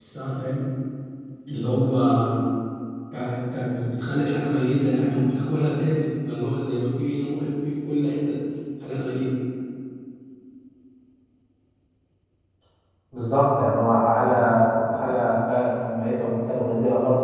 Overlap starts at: none

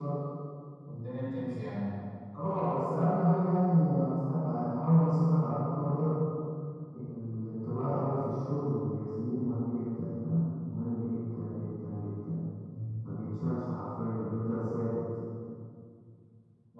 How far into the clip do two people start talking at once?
none

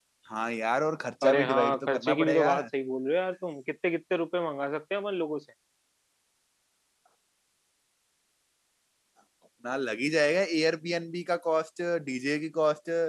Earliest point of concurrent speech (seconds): 1 s

